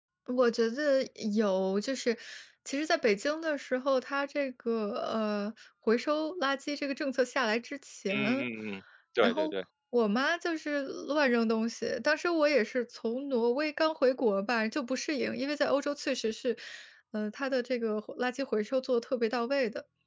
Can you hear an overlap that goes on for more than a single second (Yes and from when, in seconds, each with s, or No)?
No